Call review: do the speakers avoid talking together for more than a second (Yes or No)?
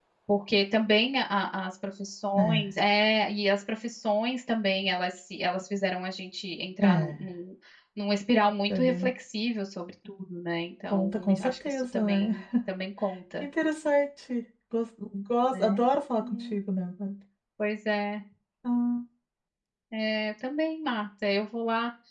No